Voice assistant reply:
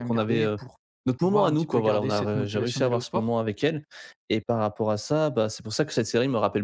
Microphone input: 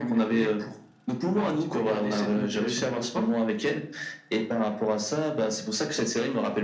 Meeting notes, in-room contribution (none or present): none